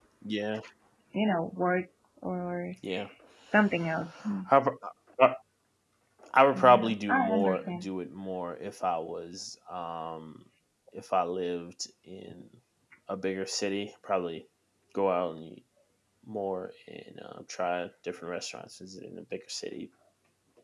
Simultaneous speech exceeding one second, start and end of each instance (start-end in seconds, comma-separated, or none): 6.5-7.9